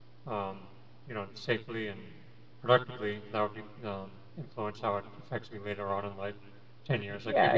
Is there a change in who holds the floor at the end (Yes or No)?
Yes